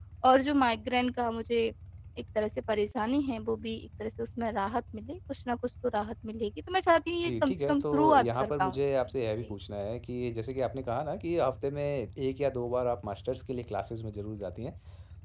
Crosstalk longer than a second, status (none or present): present